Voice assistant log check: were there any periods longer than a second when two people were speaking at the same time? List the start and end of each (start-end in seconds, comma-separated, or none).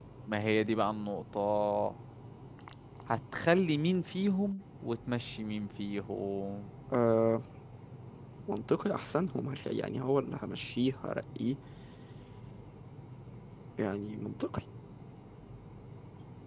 none